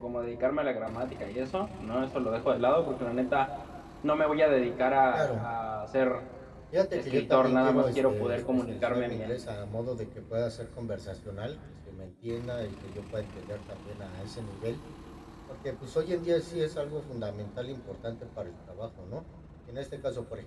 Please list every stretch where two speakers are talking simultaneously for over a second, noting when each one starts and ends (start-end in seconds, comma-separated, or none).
7.0-9.3